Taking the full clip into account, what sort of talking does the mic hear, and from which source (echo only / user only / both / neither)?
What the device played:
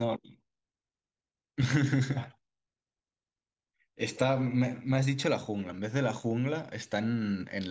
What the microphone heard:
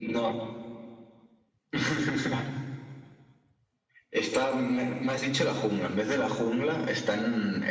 echo only